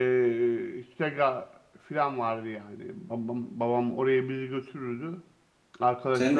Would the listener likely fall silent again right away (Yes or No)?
No